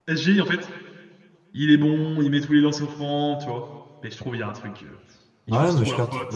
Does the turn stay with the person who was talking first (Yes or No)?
No